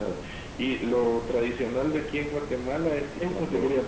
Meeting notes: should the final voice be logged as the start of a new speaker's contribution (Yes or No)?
Yes